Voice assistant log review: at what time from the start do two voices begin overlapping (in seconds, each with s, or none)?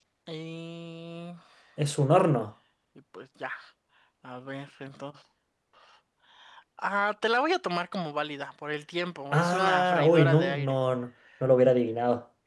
9.3 s